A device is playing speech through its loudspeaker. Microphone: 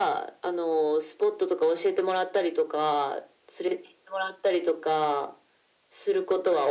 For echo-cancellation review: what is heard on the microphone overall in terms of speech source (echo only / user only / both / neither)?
echo only